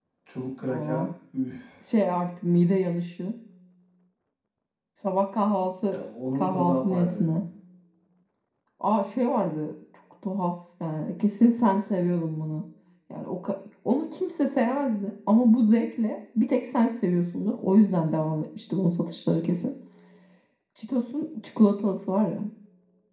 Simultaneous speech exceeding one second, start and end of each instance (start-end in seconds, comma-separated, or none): 6.0-7.3